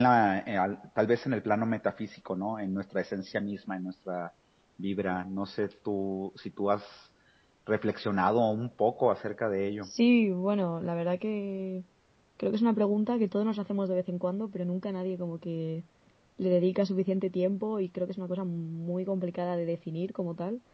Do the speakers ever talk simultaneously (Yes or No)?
No